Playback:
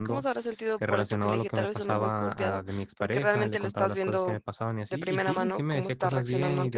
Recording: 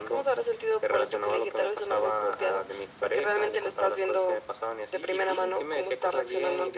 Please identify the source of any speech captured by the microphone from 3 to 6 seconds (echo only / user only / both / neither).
echo only